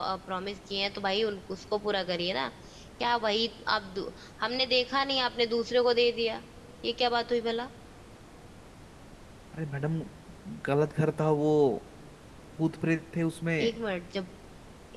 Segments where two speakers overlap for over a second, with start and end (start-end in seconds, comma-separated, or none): none